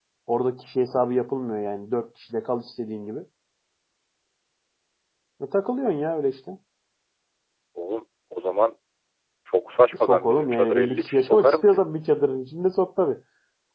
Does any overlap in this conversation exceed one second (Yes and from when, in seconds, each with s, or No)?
Yes, from 10.0 s